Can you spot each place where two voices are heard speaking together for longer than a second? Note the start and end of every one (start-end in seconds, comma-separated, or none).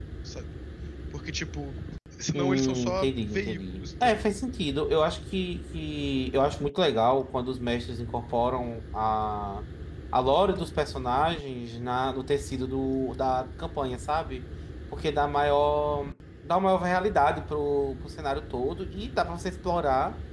2.3-4.3